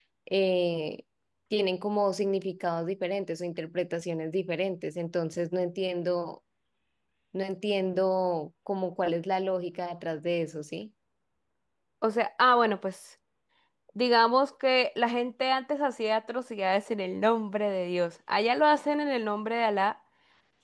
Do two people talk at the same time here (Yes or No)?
No